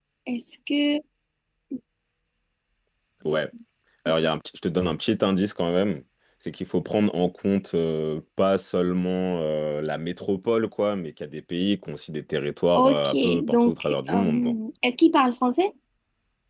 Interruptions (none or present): present